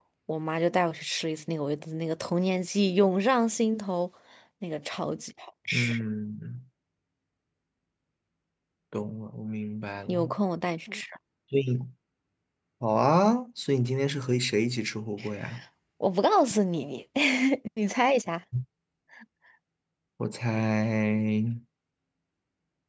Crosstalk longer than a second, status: none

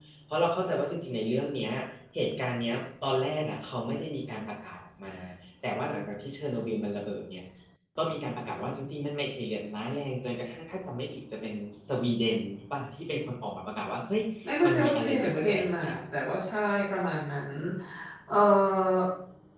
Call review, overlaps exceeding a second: present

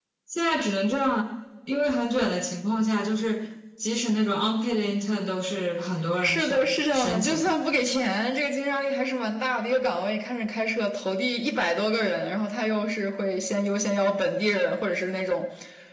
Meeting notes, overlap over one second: present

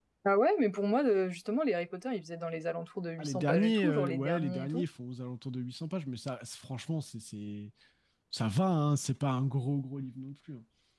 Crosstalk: present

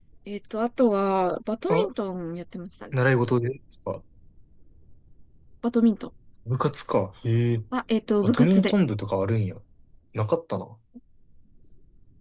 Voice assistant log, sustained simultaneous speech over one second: none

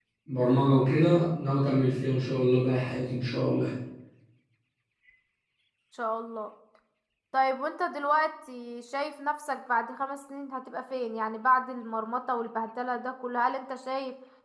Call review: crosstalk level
none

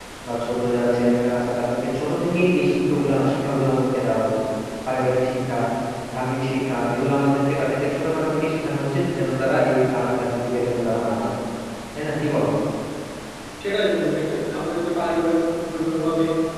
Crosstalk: none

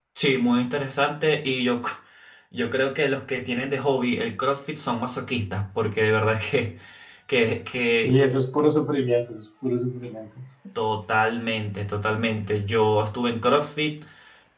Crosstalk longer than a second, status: none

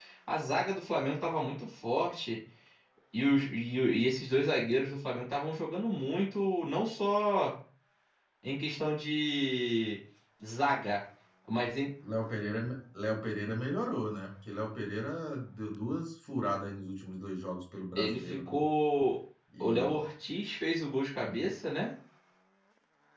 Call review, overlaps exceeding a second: none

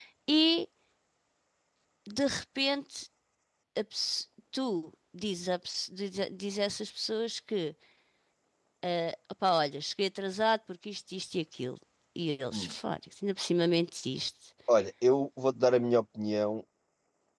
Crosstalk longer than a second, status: none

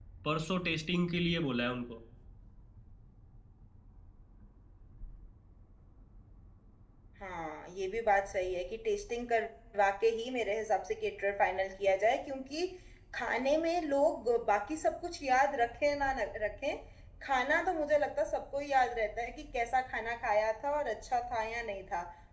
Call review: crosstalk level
none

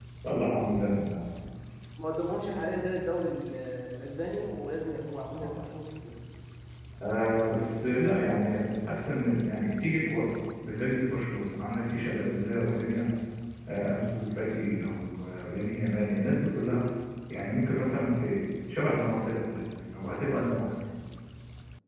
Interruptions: none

